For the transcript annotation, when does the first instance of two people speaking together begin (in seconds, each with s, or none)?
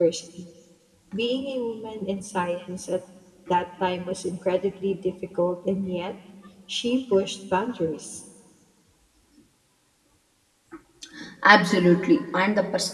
none